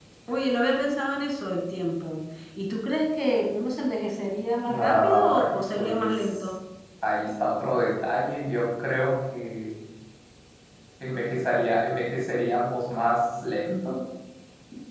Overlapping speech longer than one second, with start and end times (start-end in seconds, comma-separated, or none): 4.7-6.5